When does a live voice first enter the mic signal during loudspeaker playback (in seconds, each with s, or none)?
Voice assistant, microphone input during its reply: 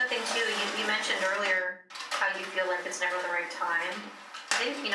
none